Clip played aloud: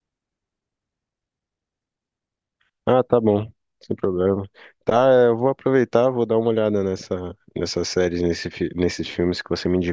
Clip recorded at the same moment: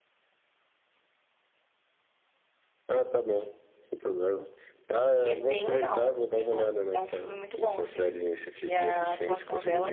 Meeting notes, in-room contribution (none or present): present